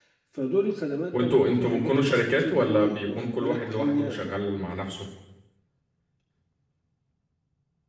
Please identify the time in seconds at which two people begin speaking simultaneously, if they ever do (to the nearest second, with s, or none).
1 s